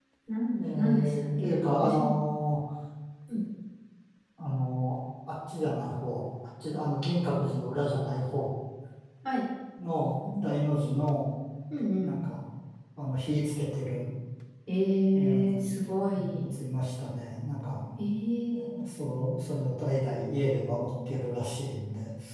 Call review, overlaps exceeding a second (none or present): present